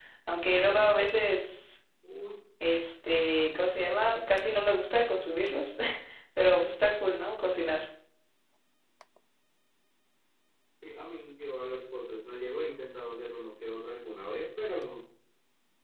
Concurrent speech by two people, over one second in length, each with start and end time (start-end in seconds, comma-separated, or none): none